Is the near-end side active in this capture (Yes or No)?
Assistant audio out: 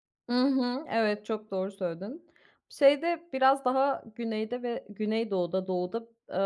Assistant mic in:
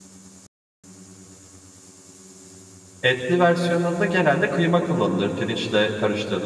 Yes